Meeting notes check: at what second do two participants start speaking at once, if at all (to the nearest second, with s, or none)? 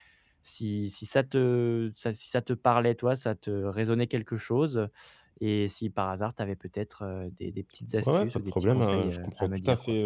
8 s